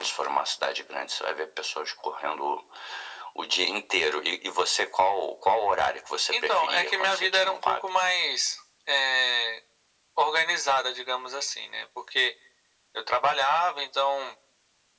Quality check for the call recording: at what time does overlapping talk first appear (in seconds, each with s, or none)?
6.3 s